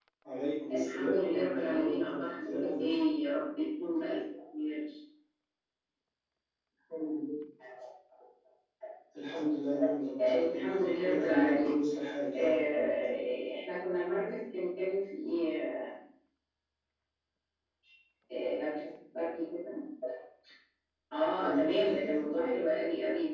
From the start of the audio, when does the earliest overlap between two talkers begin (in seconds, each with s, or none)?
0.7 s